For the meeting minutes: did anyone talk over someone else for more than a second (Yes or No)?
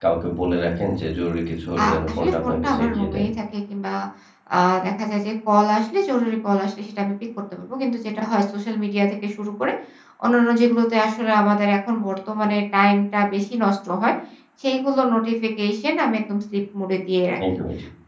Yes